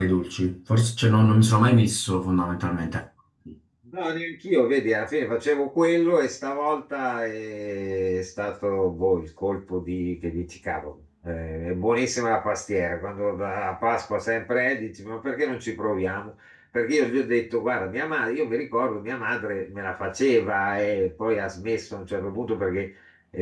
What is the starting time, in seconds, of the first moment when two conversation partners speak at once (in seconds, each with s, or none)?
none